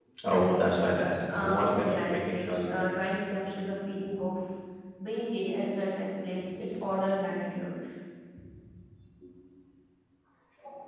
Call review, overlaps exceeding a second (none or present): present